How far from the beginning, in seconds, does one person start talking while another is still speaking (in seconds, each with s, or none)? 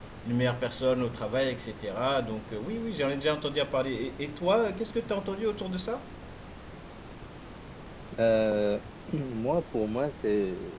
none